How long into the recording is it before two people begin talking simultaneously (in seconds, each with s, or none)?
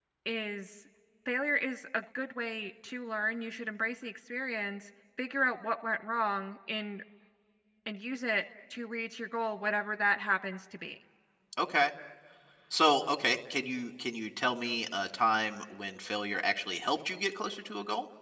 none